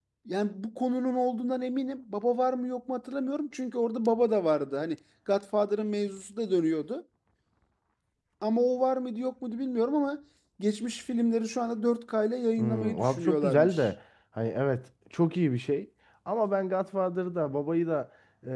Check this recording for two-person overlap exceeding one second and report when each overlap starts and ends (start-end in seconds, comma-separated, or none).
12.6-13.9